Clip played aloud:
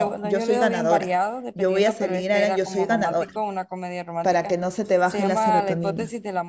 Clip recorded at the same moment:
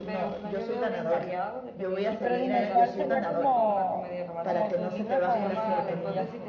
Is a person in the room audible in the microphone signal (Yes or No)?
Yes